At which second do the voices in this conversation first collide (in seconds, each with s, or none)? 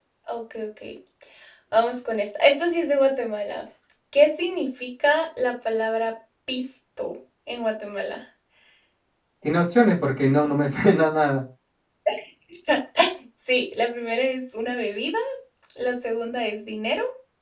none